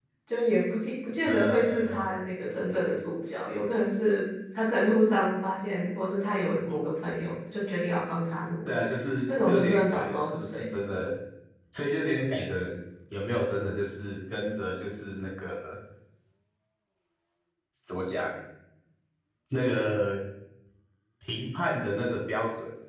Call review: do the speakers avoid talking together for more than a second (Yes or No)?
No